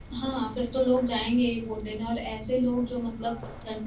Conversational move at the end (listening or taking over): listening